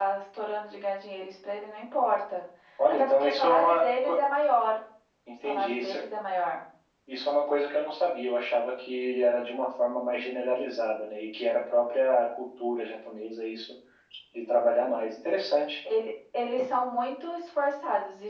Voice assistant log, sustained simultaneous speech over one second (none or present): present